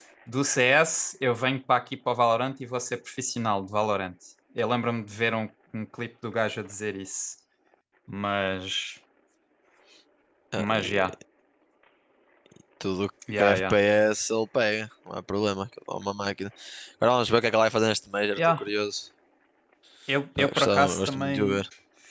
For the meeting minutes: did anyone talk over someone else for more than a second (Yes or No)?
Yes